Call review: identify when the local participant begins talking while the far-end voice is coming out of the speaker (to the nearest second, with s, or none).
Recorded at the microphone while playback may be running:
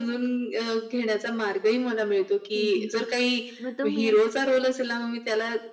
3 s